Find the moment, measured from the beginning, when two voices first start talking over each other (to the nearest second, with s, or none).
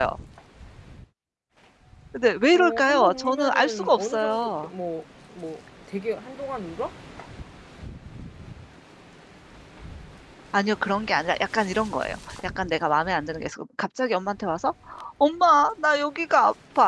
3 s